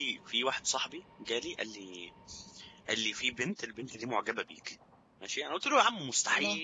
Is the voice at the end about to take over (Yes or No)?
No